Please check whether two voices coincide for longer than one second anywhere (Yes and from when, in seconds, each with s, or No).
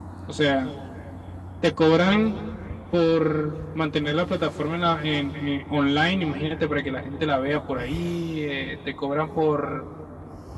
No